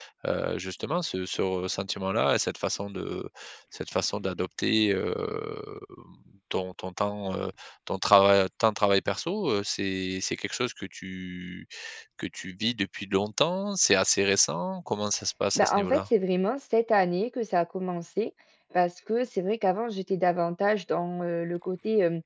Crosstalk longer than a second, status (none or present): none